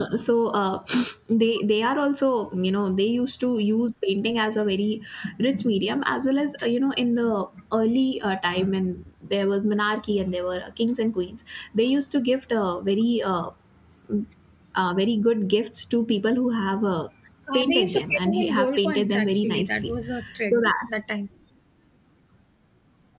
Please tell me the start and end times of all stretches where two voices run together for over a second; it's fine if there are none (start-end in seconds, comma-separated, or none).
17.5-19.9